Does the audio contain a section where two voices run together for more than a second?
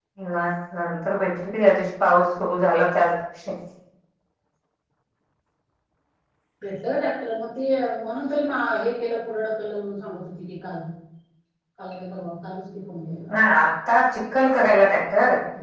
No

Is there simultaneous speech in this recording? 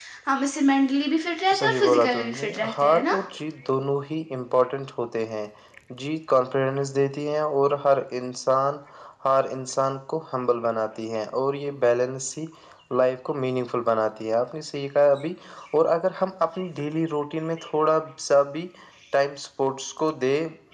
Yes, from 1.5 s

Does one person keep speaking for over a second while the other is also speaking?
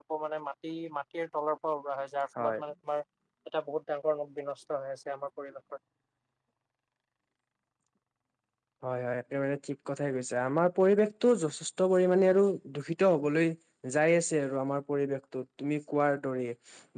No

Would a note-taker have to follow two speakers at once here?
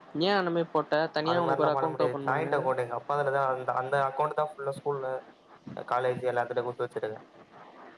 Yes, from 1.3 s

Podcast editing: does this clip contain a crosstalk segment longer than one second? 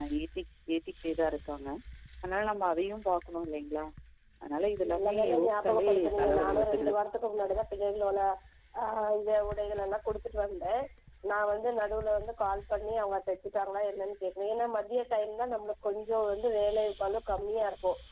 Yes, from 4.9 s

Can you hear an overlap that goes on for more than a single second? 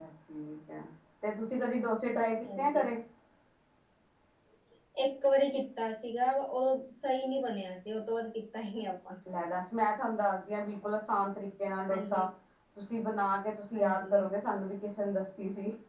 No

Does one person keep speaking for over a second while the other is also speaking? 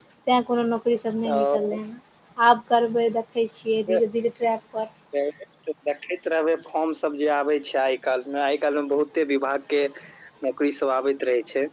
No

